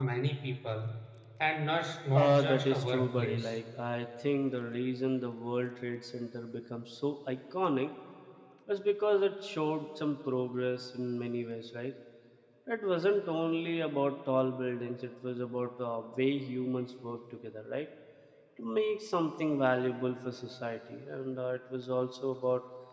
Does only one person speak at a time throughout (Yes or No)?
No